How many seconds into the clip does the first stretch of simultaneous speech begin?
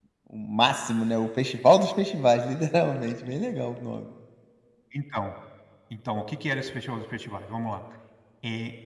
none

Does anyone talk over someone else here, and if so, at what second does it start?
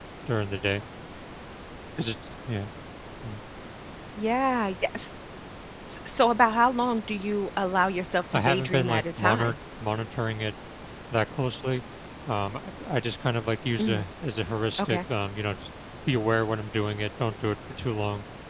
8.3 s

